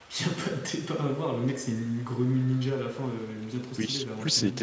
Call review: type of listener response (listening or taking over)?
taking over